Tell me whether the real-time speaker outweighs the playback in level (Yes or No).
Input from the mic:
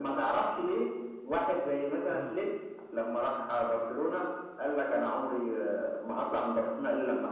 No